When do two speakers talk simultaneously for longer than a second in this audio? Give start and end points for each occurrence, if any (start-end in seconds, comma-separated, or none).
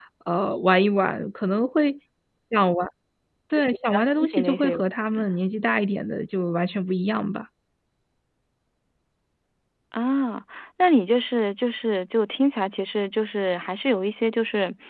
3.6-4.8